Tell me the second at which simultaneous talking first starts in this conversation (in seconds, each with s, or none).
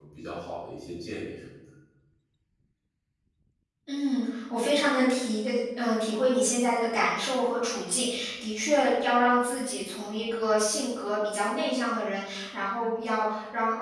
none